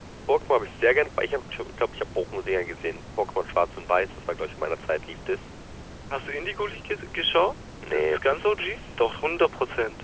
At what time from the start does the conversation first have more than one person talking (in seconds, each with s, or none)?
7.8 s